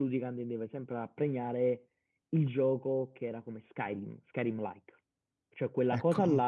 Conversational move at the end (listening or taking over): listening